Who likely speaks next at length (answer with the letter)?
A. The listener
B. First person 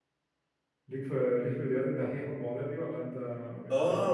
A